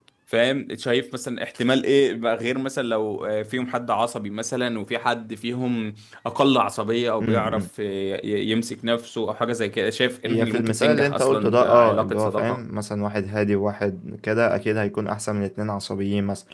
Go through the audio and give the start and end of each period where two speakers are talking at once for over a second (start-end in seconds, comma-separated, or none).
10.3-12.6